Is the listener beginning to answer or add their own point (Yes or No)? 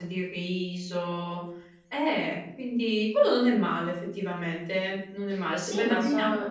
Yes